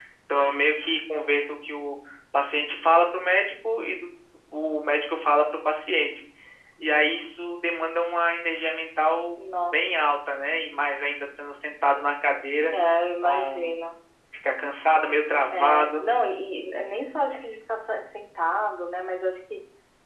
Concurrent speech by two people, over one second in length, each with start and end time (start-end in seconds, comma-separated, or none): none